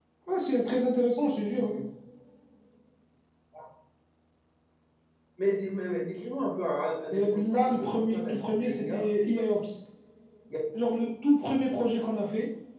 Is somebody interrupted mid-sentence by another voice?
Yes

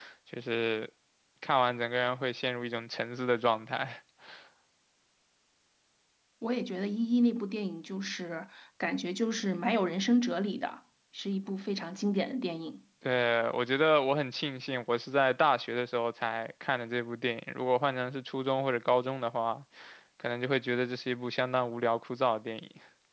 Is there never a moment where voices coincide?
Yes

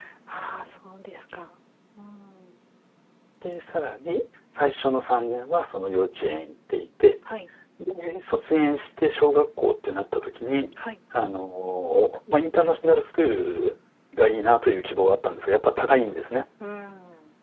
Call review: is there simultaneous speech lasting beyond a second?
No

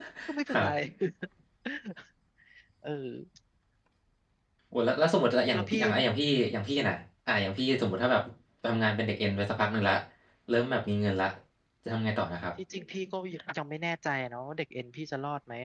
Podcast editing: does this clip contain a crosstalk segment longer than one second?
No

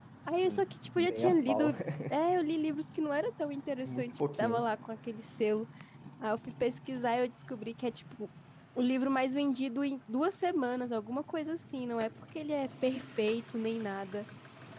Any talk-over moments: Yes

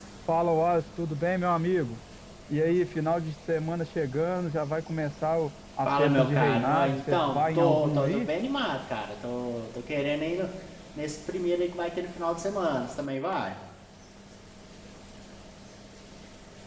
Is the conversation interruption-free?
No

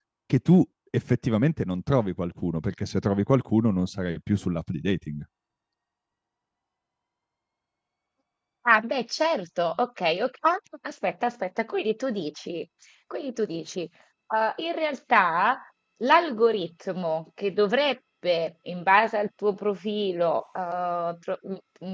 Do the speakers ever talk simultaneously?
No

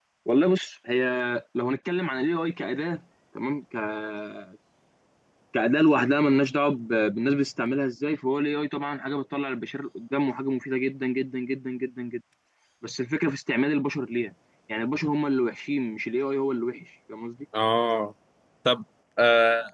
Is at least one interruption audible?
No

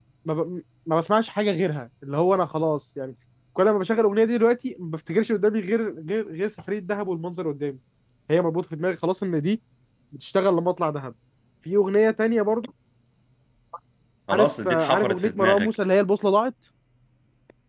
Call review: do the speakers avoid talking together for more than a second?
No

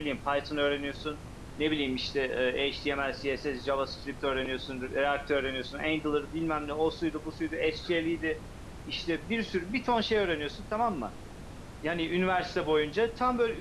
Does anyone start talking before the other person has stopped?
No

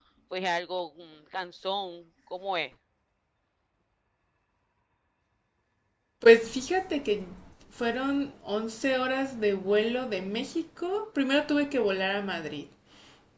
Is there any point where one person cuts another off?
No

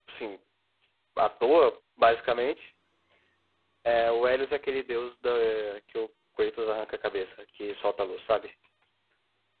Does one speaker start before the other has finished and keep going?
No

